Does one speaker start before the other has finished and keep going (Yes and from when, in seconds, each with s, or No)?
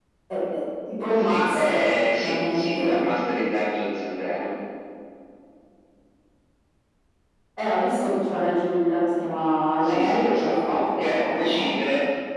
Yes, from 1.1 s